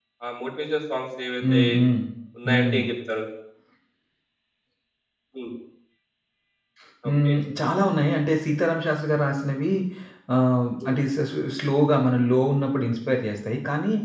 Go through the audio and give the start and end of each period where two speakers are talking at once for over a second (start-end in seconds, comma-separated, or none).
none